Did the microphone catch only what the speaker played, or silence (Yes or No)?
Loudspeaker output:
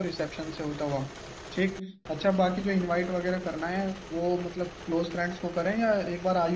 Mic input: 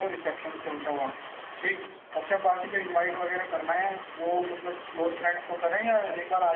Yes